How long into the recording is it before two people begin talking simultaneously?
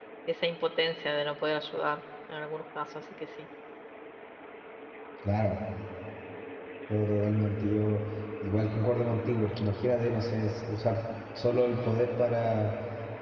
none

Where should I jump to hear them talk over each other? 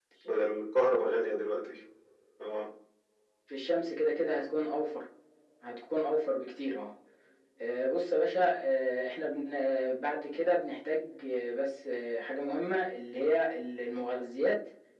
none

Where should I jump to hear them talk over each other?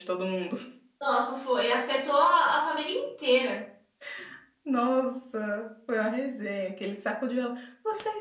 none

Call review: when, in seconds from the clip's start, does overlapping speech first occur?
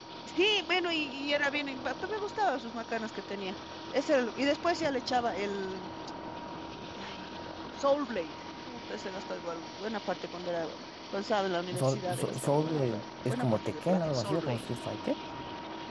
12 s

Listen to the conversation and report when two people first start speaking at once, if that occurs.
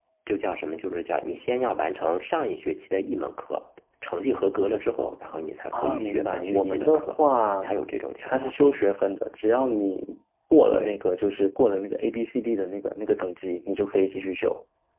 6 s

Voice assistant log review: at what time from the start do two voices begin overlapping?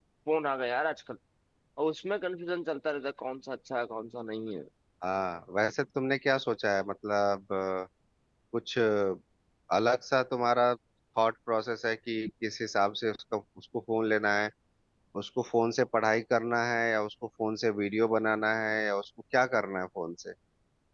none

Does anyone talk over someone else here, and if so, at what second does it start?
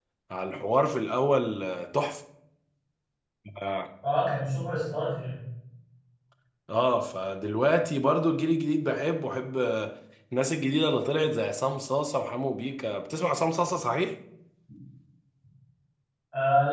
none

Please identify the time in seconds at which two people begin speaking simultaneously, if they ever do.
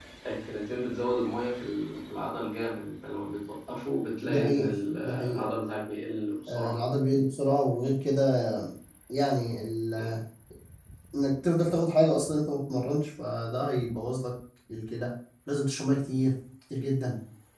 4 s

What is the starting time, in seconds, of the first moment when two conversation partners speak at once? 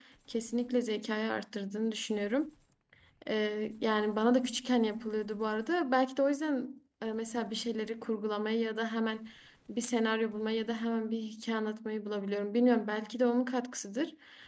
none

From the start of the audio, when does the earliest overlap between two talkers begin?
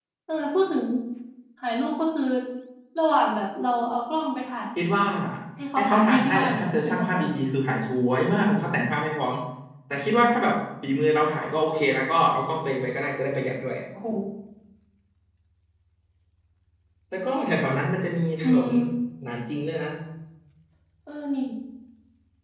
6 s

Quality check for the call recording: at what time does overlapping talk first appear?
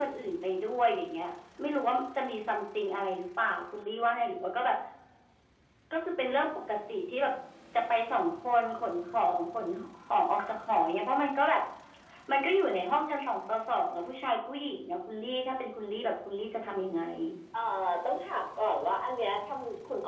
none

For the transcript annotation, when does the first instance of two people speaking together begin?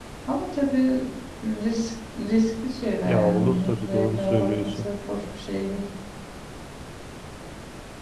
3 s

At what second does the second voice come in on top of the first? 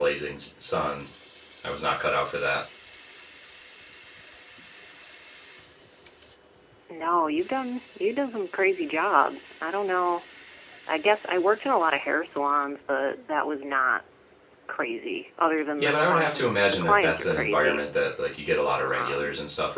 16 s

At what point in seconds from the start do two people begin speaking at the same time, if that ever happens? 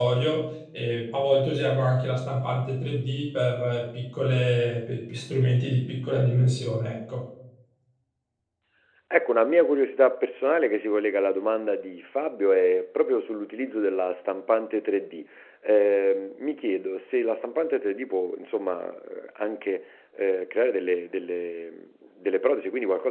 none

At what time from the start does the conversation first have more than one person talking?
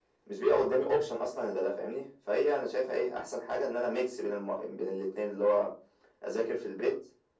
none

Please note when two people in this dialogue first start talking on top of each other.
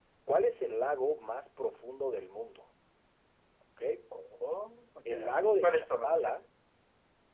5 s

